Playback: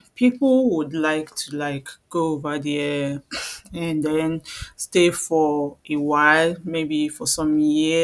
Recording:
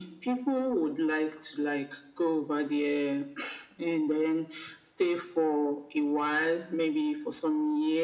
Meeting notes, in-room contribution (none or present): none